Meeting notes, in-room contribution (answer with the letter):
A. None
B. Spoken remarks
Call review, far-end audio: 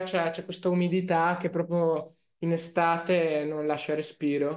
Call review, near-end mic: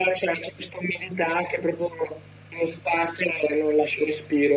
A